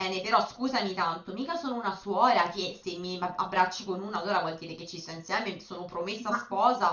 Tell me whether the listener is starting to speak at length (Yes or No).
No